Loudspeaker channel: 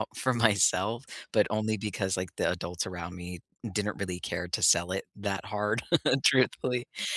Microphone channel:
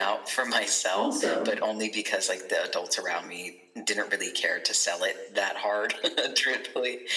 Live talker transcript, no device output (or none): Also